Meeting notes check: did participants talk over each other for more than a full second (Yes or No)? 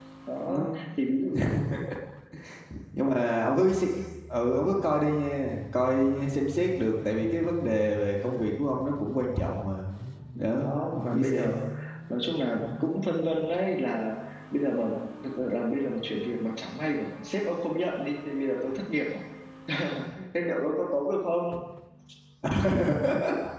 Yes